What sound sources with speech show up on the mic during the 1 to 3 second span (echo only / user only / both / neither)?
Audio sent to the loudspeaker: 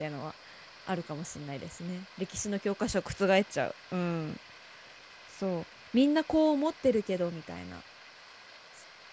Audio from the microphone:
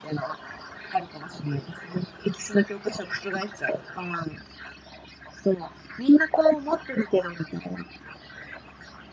echo only